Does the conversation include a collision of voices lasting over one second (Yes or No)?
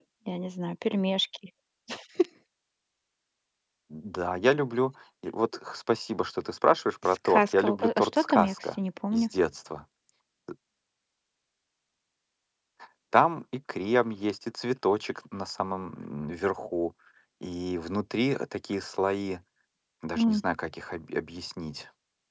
Yes